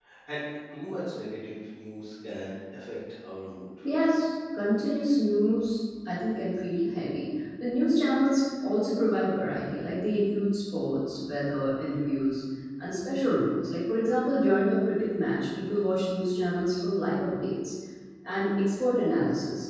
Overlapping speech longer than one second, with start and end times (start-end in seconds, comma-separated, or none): none